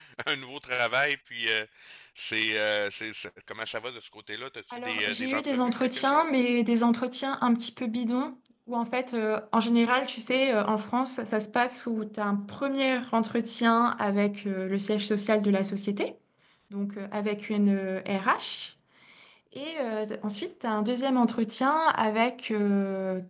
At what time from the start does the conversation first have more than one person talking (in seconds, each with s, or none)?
4.7 s